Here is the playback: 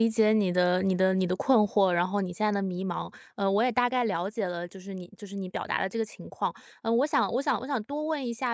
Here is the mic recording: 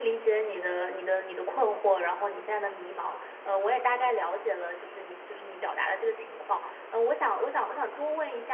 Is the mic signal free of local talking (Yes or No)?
Yes